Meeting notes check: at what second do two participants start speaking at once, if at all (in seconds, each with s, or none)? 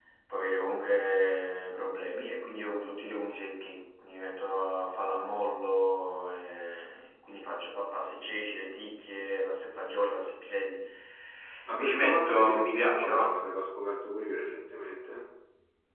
11.8 s